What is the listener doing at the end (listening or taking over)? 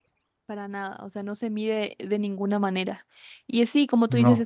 listening